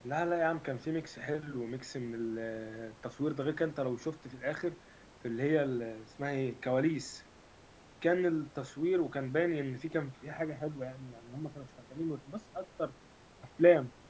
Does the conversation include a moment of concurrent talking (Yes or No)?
No